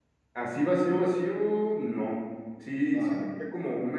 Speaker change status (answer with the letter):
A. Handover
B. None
B